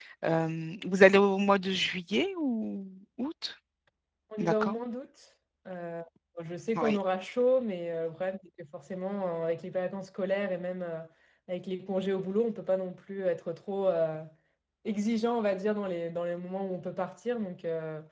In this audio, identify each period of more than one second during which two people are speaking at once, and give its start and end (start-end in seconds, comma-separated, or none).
none